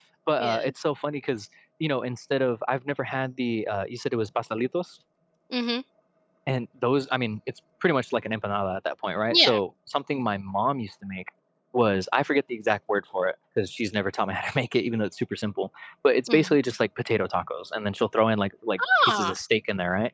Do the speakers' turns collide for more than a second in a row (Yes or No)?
No